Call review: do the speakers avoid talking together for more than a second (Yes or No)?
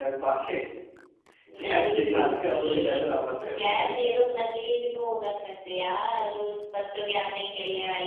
No